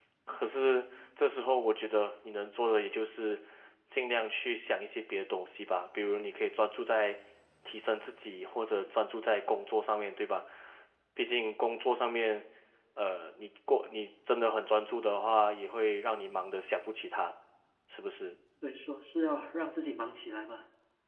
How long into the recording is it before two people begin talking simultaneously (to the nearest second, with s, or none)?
none